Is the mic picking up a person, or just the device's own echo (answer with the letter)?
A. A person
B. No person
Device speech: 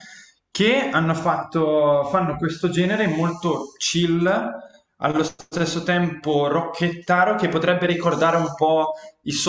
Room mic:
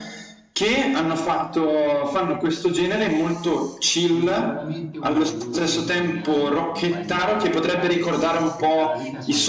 A